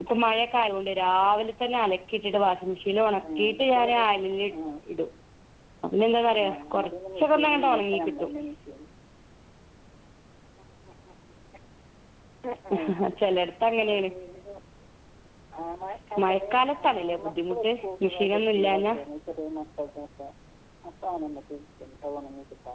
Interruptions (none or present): present